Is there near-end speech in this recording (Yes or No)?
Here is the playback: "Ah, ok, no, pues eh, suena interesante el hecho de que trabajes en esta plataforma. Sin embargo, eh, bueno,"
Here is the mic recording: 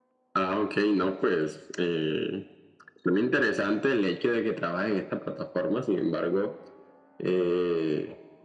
No